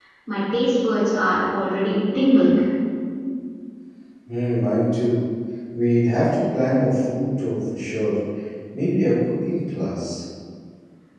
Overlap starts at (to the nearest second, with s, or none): none